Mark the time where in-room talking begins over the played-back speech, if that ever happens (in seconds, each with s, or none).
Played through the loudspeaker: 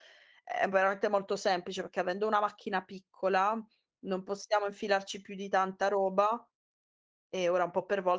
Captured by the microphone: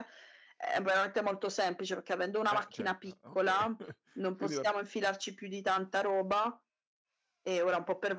2.5 s